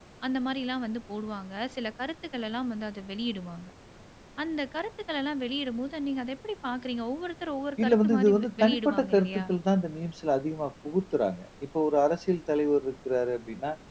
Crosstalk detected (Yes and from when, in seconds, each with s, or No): Yes, from 7.8 s